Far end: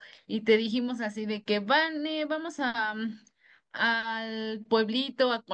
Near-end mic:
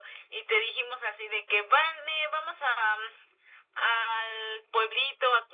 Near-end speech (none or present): none